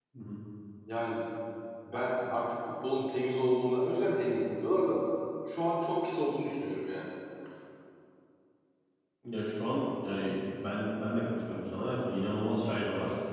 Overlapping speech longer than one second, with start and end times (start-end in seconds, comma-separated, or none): none